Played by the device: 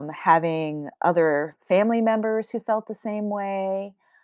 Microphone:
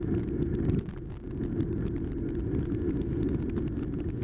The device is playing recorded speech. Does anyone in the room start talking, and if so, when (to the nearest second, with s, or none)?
none